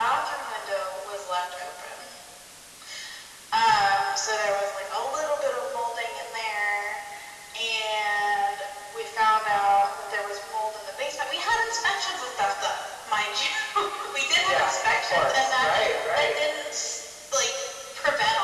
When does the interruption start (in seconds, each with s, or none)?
14.4 s